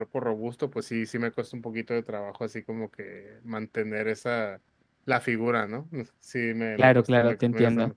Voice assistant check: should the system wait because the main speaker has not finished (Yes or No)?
No